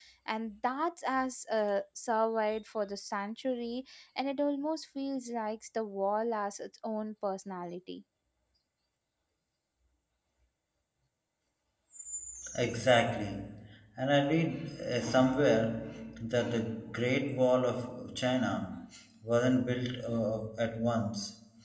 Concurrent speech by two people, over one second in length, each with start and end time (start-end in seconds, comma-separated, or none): none